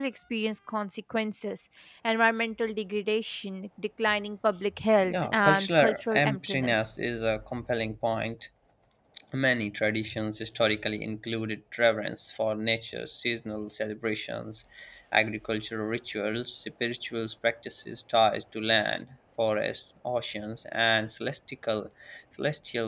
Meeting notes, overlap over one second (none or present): present